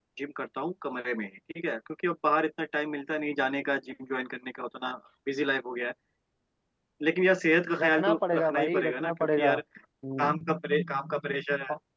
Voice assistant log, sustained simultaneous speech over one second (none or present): present